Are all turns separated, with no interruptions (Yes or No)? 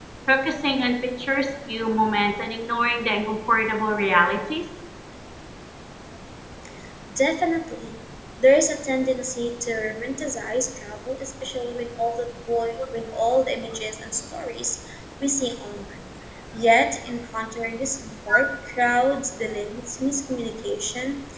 Yes